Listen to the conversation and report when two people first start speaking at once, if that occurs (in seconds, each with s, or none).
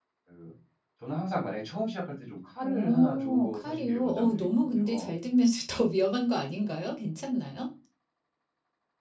2.6 s